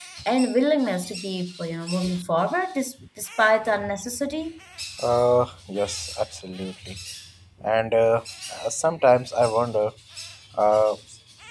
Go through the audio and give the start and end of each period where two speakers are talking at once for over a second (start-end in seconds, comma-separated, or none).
none